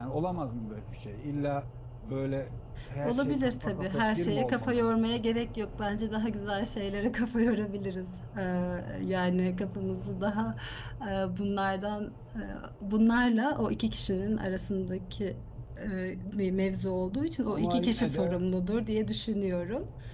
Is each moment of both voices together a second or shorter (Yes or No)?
No